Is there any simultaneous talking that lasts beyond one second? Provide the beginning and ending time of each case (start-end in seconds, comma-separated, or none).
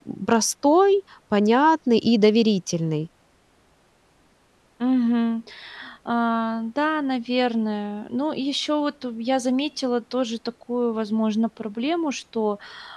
none